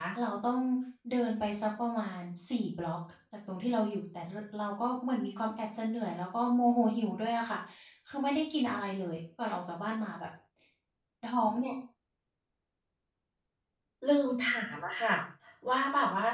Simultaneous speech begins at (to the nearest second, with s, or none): none